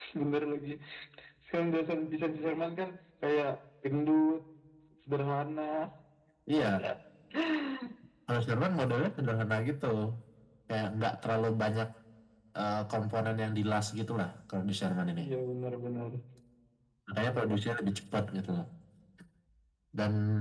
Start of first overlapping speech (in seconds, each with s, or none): none